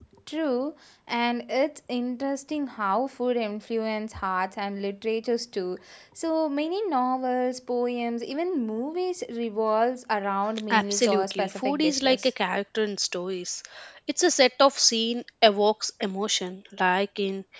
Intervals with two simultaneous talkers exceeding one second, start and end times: 10.7-12.3

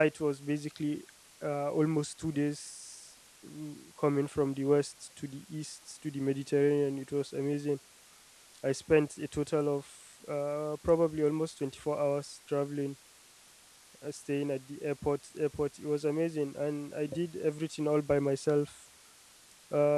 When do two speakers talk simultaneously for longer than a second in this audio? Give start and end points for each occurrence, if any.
none

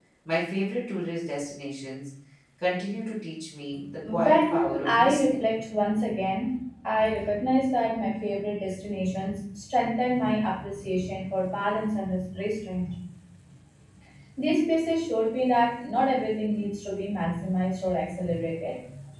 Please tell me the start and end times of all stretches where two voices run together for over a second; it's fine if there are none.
4.2-5.5

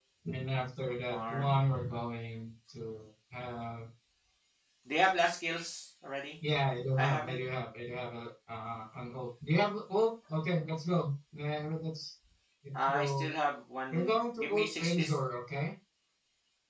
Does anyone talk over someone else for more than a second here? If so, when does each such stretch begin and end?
13.9-15.2

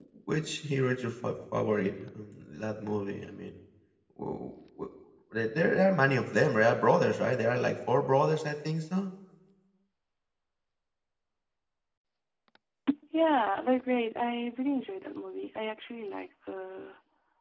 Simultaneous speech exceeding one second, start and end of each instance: none

